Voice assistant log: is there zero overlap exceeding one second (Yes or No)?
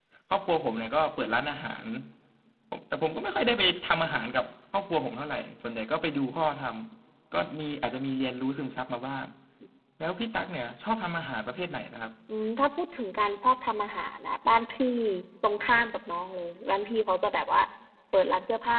Yes